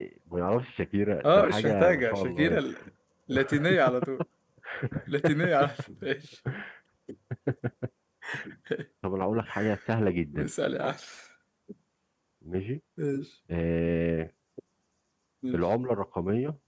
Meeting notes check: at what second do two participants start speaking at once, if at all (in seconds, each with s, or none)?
1.2 s